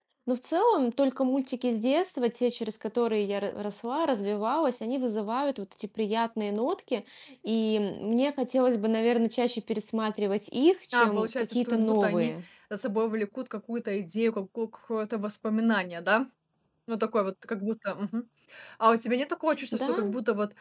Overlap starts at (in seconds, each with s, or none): 10.9 s